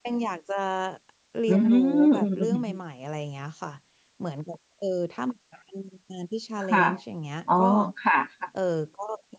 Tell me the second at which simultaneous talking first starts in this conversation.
1.5 s

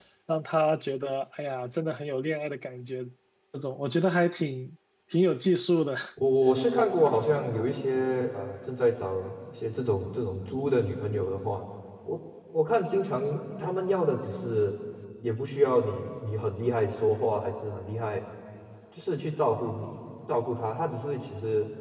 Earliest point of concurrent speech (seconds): none

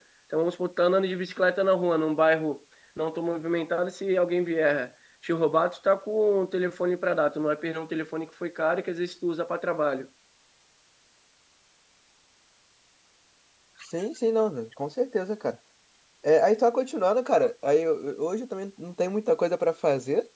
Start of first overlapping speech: none

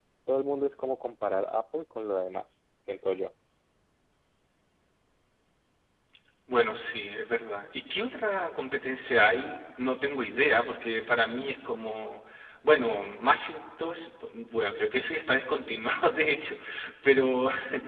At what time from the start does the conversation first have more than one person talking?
none

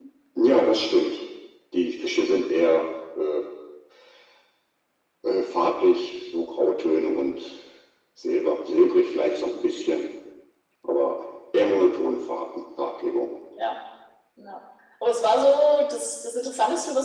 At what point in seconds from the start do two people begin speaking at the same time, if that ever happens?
none

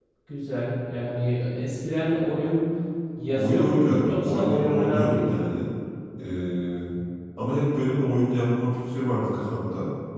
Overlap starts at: 3.3 s

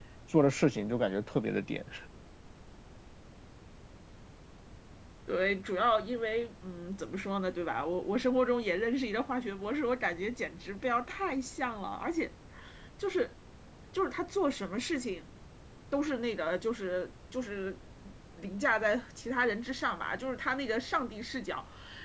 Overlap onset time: none

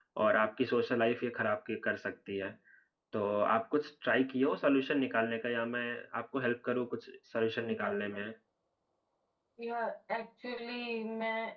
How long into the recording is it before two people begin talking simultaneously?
none

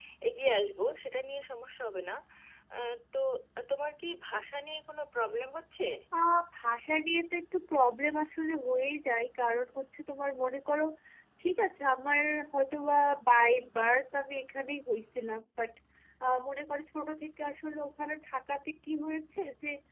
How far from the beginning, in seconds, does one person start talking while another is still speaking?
none

